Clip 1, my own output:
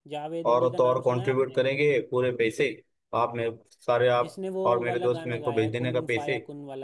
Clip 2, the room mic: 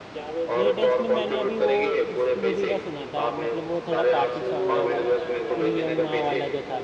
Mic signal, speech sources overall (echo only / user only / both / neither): both